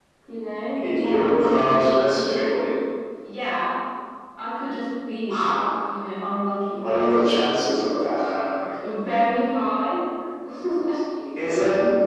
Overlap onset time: 0.9 s

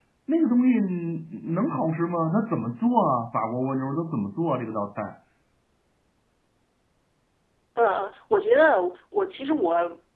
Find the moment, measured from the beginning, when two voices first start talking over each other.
none

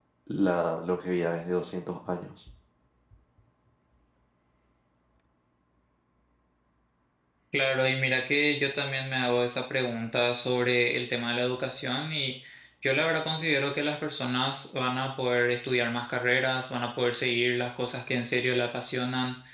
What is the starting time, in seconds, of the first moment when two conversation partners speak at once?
none

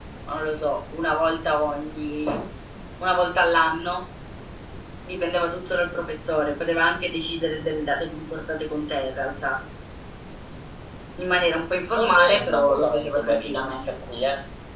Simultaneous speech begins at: 11.9 s

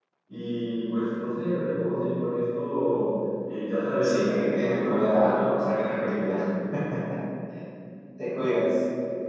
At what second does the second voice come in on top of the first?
4.0 s

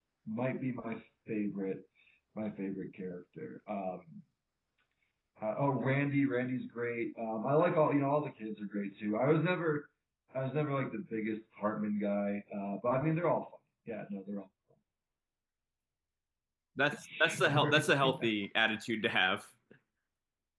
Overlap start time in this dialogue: 17.0 s

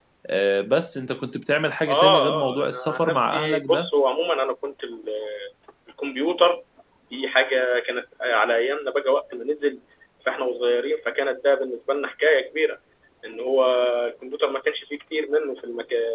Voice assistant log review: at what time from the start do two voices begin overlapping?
1.9 s

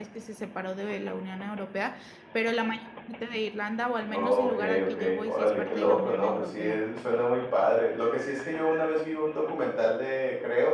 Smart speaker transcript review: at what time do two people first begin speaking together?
4.1 s

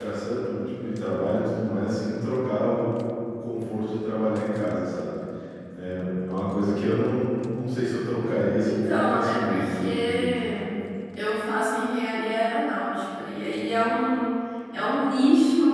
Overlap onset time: 8.6 s

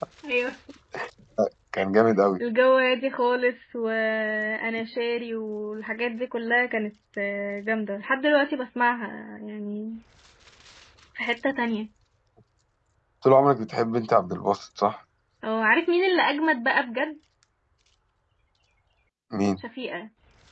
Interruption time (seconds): none

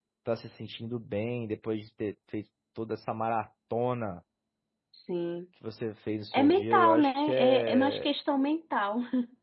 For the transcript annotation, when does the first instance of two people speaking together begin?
6.3 s

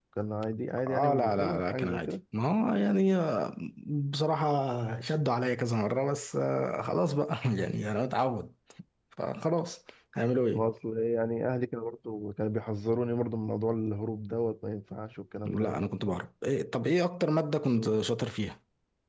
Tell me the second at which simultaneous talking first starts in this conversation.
0.9 s

